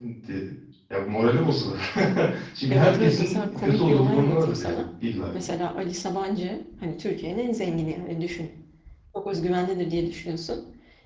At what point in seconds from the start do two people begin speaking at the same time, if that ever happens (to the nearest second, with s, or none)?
3 s